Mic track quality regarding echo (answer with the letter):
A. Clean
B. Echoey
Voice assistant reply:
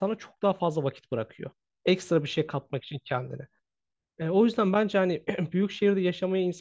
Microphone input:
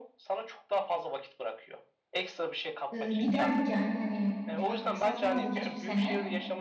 B